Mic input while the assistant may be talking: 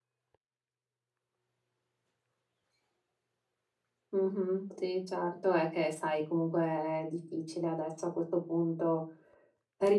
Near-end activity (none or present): present